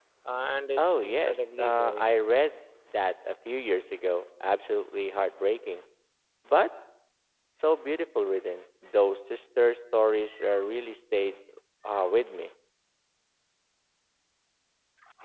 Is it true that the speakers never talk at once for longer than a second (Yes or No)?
No